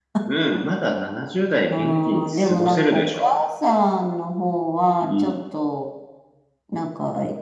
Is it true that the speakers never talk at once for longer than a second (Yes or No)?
No